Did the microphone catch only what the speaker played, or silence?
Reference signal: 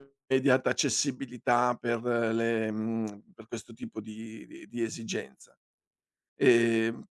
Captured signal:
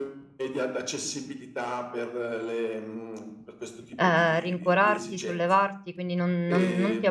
No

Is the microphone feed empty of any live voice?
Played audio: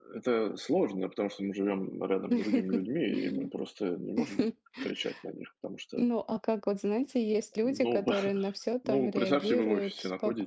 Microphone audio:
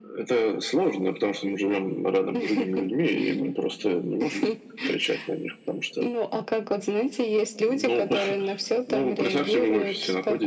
Yes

